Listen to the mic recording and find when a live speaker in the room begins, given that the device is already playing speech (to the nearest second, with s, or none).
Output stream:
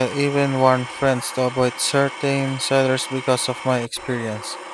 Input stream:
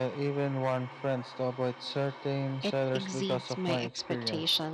3 s